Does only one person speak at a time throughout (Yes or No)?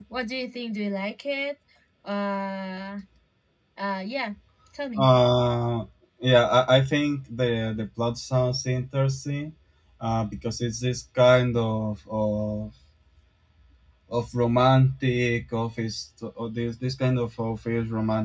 Yes